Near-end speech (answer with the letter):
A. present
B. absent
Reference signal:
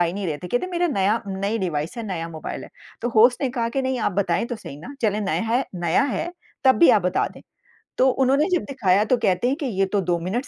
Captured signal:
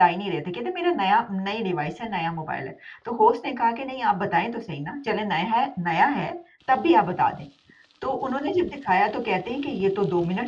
B